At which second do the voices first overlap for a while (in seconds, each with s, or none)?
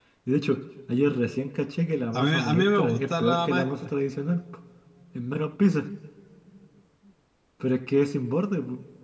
2.1 s